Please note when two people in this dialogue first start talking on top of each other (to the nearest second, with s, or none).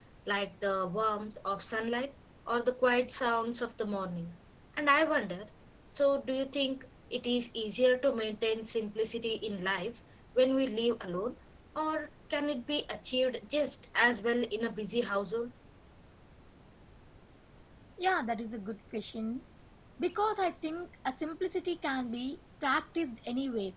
none